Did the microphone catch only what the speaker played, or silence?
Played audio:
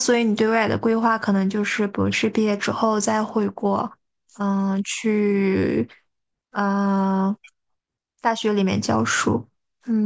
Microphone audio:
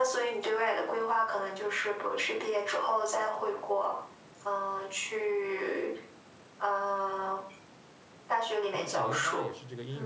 No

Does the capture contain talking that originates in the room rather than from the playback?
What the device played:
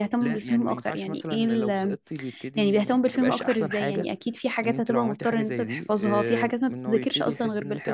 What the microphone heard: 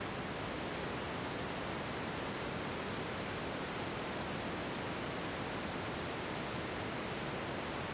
No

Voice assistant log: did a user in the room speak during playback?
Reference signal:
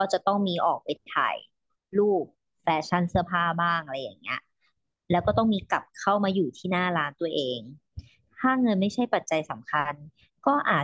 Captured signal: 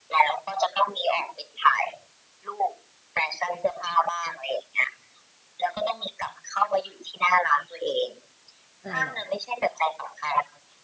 Yes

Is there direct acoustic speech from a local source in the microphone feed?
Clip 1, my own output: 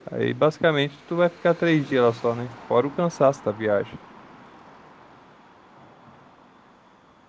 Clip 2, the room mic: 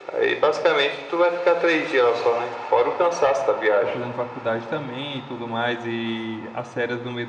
Yes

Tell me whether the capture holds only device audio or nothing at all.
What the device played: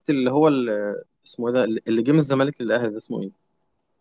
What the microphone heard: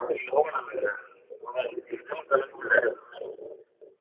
Yes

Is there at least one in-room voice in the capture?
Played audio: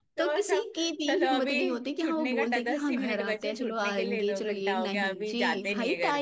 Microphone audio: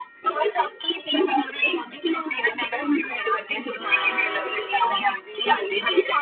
No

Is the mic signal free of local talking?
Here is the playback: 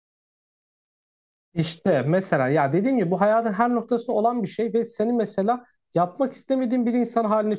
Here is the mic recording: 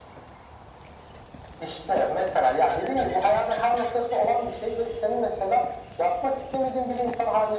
Yes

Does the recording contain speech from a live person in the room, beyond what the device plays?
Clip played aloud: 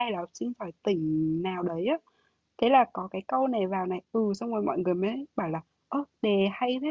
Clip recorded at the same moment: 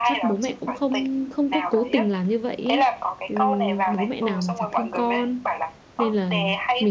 Yes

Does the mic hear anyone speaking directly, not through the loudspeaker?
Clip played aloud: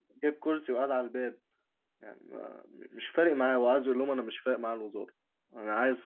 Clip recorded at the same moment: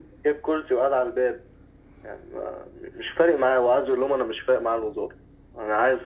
No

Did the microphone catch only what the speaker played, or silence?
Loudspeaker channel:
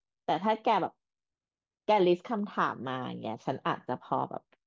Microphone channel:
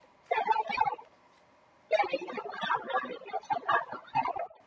Yes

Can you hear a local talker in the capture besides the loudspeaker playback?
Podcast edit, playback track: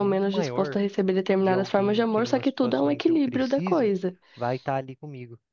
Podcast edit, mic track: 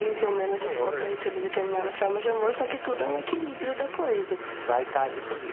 No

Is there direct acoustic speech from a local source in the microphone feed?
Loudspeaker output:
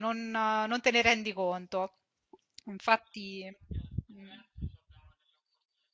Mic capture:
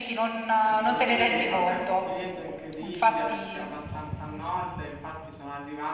Yes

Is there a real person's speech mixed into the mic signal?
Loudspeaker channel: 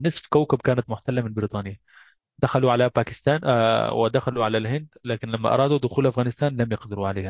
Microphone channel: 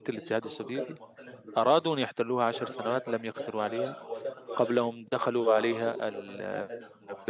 Yes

